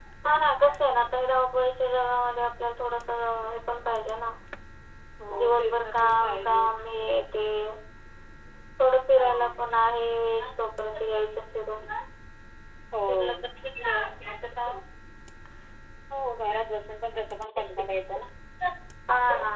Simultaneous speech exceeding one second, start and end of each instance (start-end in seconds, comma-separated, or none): 5.4-6.7